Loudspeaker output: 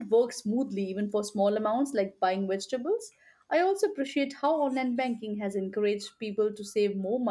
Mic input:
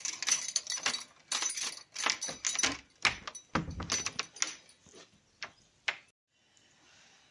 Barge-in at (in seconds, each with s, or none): none